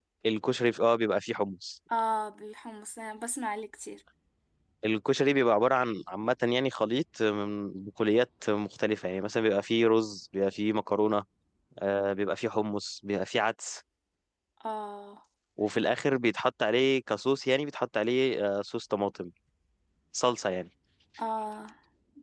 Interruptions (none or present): none